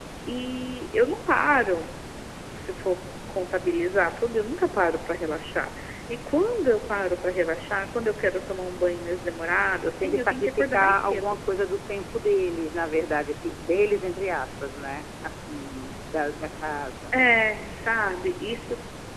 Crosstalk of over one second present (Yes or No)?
Yes